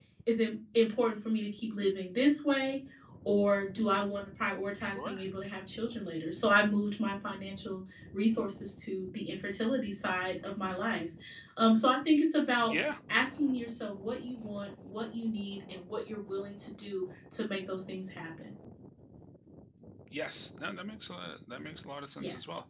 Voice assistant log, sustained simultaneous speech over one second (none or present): none